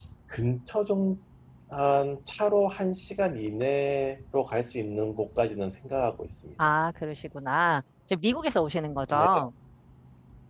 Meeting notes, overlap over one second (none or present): none